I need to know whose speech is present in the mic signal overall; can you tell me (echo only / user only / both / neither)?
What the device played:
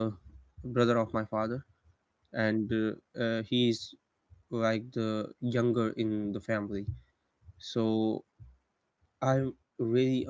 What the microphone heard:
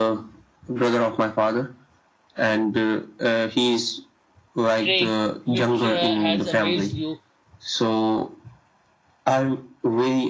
both